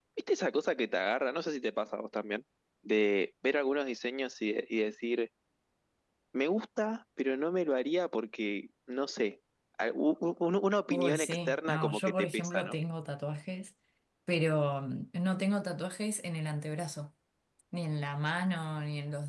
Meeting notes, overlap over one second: present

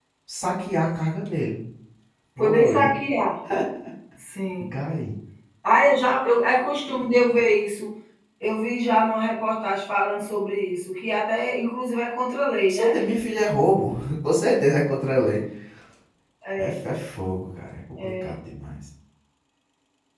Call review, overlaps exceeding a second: none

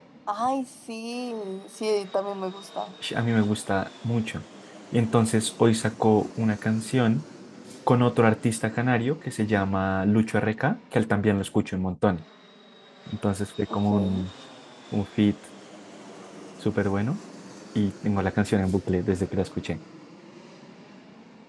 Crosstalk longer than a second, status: none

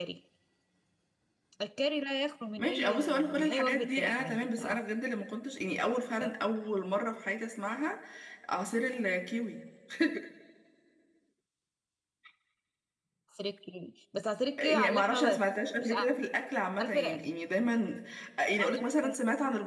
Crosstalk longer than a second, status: present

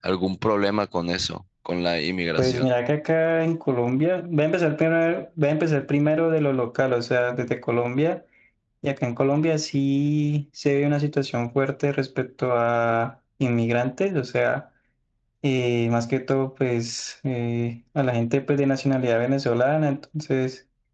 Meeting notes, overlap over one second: none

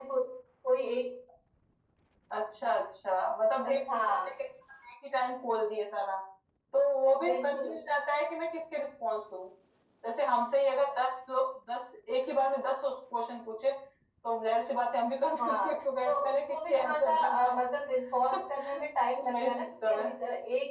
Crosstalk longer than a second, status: present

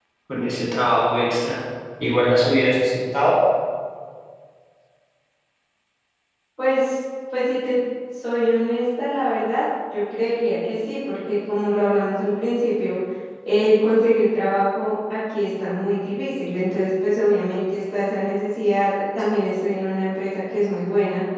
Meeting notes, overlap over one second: none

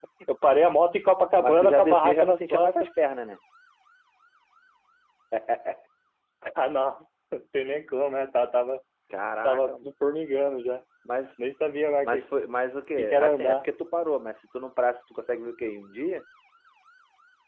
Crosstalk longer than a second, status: present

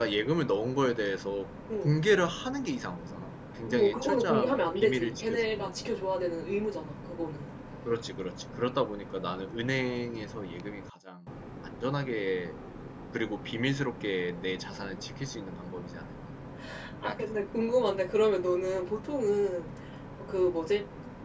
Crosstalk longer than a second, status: present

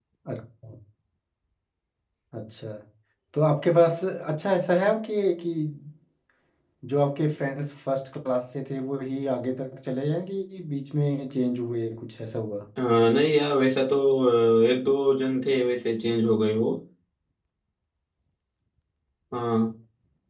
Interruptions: none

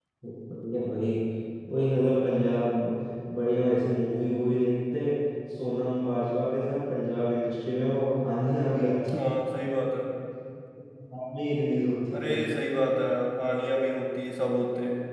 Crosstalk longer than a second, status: none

